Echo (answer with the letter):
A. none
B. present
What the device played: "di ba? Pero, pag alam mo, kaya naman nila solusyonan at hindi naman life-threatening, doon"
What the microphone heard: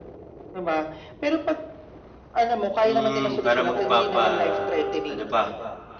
B